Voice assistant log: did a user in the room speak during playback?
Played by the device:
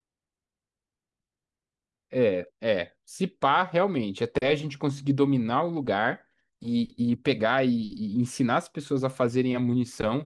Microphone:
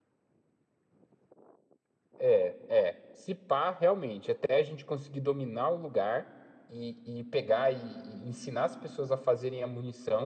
No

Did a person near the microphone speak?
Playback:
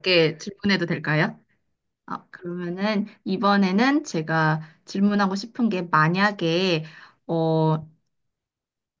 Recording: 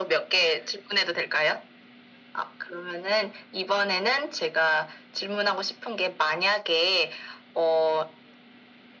No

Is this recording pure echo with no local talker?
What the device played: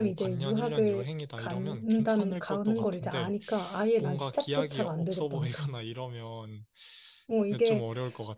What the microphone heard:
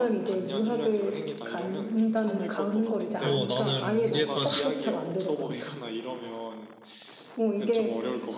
No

